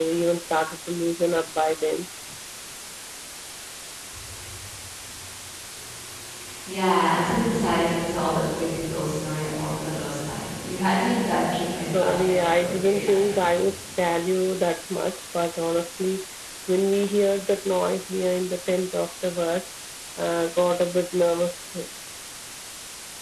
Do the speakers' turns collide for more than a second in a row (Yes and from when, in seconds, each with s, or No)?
Yes, from 11.9 s